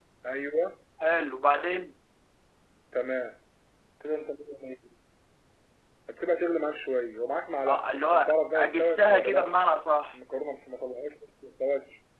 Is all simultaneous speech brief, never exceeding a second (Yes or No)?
No